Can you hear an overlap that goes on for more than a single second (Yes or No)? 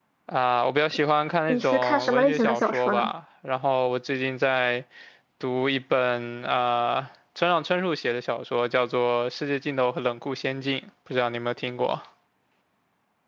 Yes